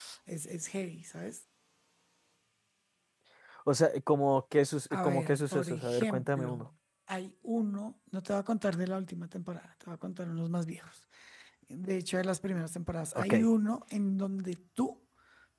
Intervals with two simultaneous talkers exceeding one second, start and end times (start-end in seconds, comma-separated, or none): 4.9-6.7